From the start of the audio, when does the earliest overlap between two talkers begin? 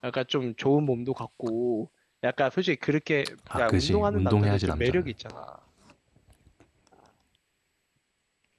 3.5 s

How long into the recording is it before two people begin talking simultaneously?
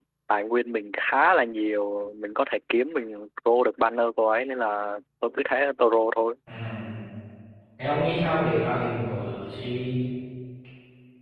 none

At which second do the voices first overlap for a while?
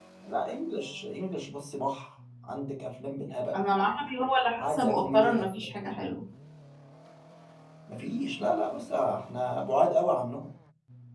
4.6 s

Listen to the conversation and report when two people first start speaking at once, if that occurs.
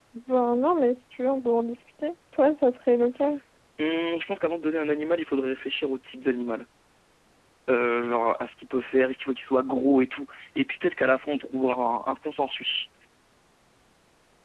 none

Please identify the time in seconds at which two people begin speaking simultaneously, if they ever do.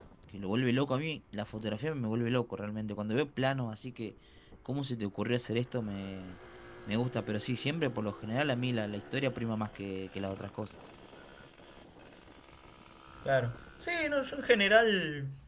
none

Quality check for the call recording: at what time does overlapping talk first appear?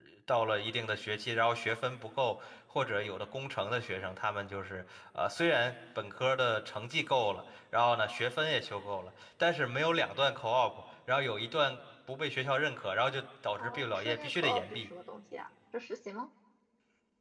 13.6 s

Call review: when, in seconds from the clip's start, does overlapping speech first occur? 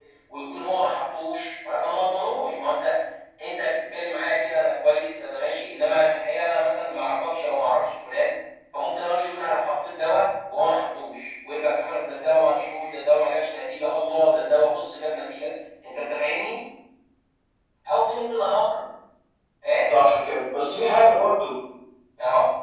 none

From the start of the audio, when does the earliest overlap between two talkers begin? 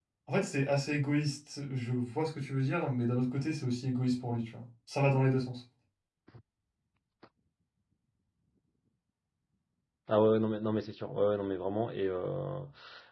none

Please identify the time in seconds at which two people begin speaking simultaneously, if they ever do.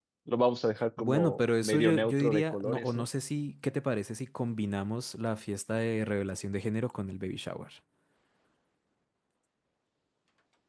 1.0 s

